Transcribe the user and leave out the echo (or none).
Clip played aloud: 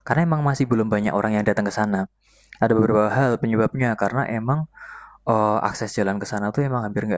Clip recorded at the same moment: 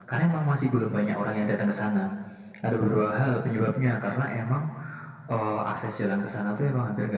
none